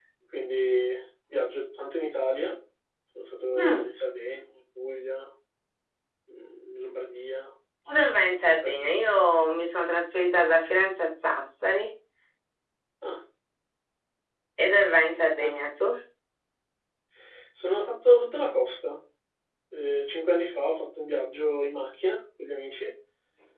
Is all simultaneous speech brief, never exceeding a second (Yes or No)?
Yes